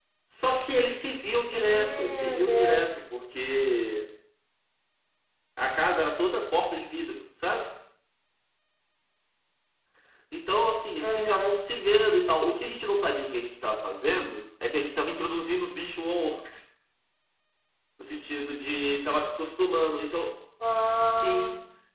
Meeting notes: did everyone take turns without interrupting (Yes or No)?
No